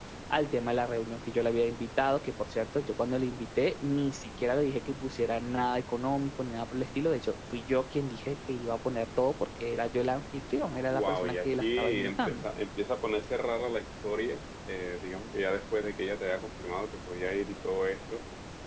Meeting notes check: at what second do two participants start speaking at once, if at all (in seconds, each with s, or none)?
10.9 s